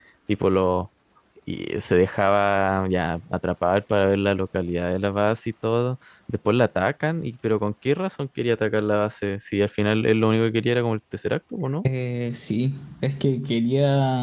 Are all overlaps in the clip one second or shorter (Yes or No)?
Yes